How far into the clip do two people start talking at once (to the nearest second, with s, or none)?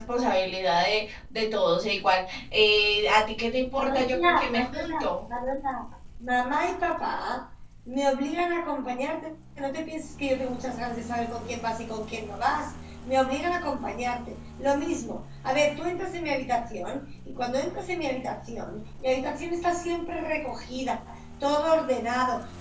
4 s